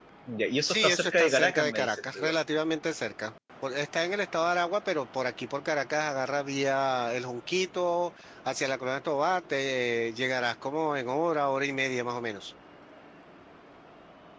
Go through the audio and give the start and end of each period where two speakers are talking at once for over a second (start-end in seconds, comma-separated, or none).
0.6-2.4